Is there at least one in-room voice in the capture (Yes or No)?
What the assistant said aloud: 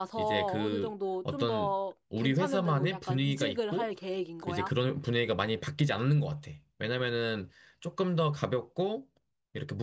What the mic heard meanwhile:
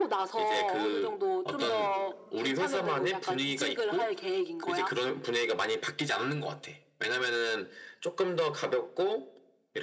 Yes